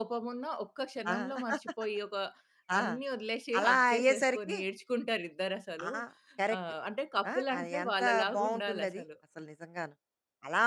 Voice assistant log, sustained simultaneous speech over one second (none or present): present